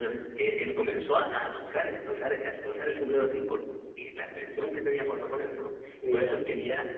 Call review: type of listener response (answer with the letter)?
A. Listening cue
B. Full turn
A